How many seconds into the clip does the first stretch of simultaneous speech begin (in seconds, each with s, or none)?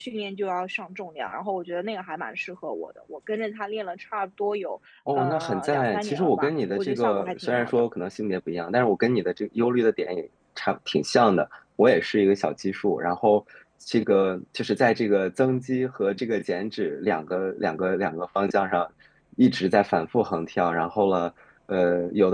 5.1 s